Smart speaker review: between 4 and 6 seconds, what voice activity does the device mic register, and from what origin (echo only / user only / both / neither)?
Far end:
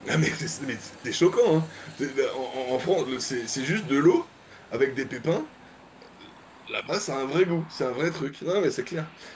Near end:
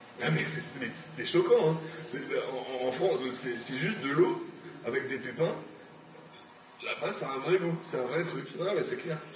echo only